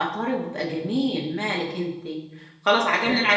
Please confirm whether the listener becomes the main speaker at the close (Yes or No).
No